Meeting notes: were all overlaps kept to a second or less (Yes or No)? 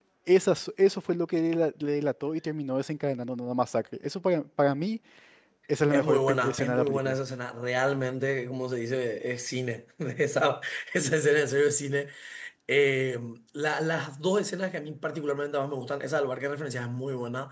No